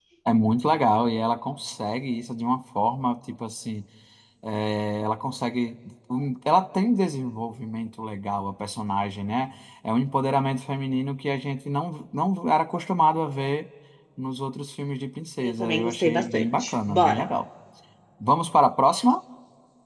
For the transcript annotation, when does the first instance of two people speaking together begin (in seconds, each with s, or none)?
15.4 s